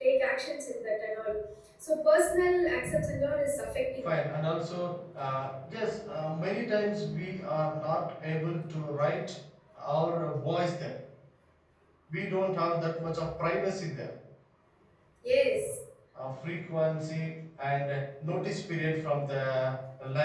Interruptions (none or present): none